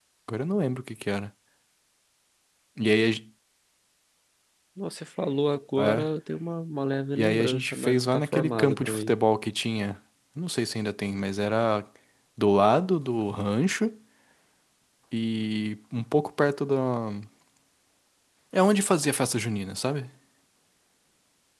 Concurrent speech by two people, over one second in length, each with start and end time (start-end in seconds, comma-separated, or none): 7.2-9.2